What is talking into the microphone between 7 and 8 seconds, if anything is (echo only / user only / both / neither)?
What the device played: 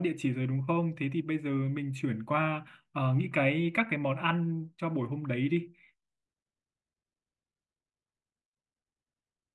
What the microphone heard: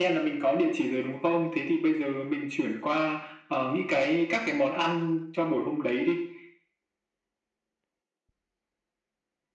neither